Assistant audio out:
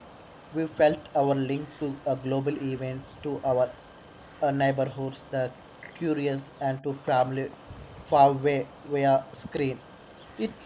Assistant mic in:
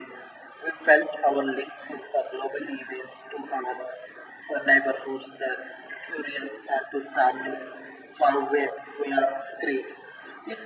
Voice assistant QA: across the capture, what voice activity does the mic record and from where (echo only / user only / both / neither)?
echo only